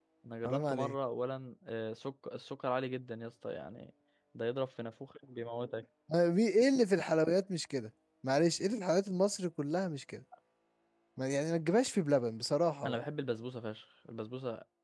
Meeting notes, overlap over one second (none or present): none